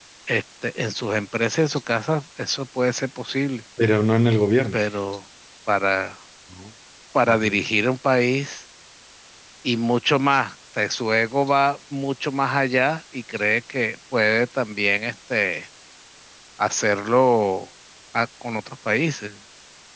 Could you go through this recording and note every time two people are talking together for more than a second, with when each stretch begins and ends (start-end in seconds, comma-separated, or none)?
none